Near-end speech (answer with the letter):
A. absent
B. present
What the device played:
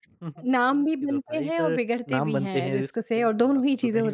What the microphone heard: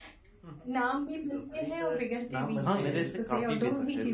B